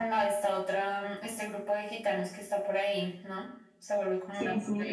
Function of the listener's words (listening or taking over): taking over